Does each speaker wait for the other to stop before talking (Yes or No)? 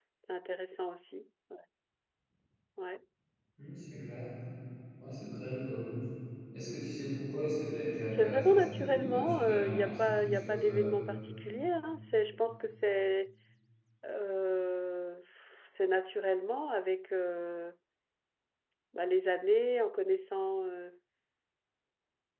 No